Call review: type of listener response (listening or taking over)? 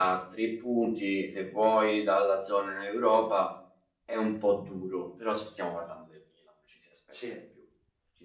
listening